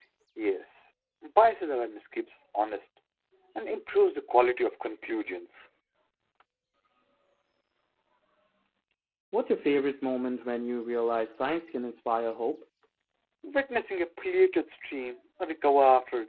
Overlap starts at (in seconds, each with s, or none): none